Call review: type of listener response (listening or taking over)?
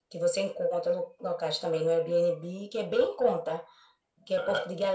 listening